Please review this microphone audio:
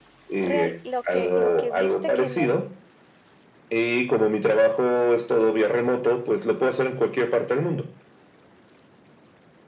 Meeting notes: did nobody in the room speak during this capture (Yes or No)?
No